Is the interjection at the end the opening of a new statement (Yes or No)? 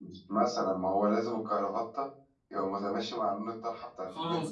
Yes